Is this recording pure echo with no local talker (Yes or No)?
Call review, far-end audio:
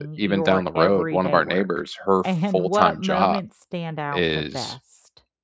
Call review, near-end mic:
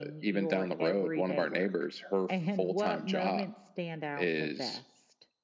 Yes